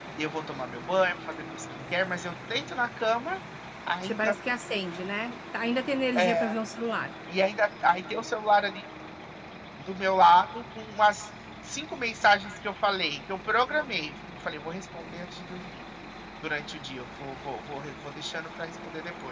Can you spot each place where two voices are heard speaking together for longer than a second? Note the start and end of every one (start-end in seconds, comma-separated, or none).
none